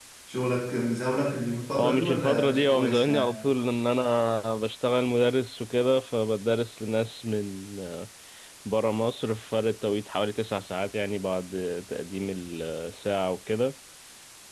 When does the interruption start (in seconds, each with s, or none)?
1.7 s